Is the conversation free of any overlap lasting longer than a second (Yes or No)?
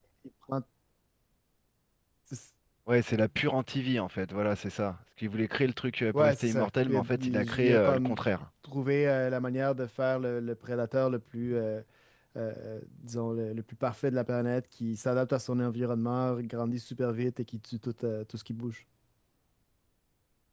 No